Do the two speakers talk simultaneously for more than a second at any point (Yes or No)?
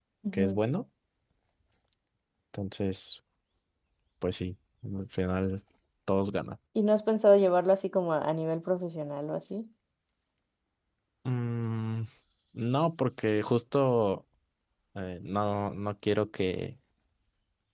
No